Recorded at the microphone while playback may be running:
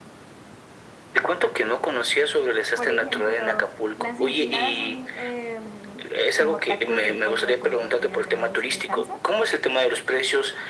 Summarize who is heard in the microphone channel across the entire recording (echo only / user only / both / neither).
both